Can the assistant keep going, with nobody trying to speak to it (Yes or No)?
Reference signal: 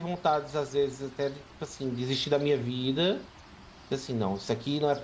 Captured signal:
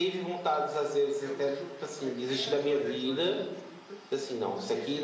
No